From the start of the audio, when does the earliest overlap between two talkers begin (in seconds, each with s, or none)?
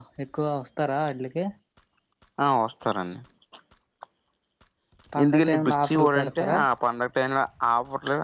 5.2 s